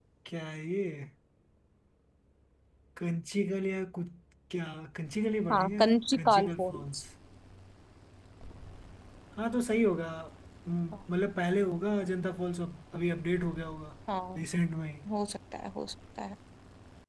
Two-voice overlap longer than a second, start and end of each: 5.5-7.0

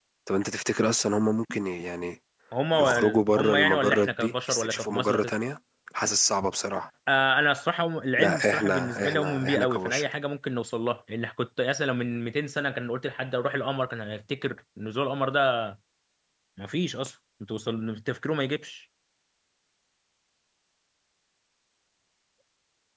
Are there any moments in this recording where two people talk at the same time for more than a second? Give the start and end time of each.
2.7-5.3, 8.2-10.0

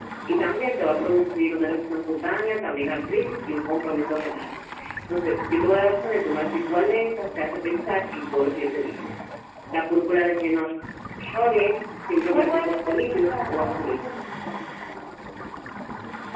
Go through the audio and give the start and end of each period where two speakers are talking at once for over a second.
12.3-14.0

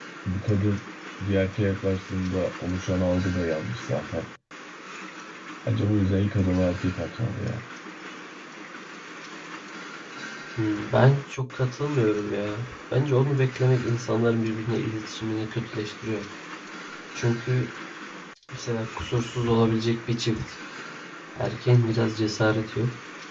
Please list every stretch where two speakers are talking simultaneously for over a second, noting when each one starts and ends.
none

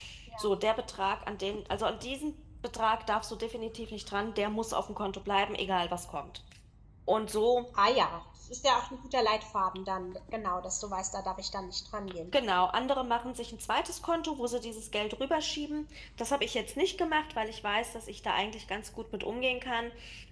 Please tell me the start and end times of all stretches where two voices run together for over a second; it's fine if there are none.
none

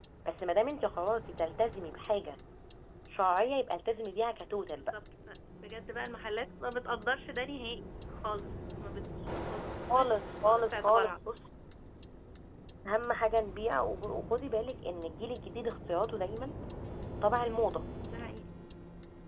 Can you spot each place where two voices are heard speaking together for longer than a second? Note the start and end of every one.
9.9-11.2

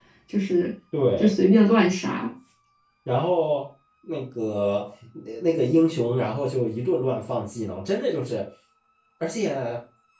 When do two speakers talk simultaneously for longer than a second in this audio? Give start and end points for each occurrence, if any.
none

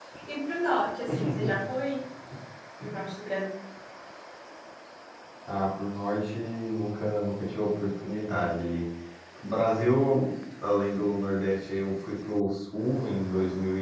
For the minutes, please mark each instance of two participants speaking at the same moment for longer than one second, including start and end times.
none

